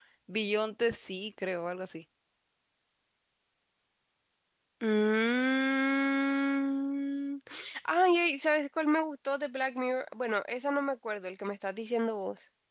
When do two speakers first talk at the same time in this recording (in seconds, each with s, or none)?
none